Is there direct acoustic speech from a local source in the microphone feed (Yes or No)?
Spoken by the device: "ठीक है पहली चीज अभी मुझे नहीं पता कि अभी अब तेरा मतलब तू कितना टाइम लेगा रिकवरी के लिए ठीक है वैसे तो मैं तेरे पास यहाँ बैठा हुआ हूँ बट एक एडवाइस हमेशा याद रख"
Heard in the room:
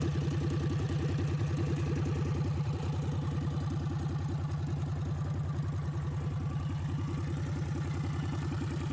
No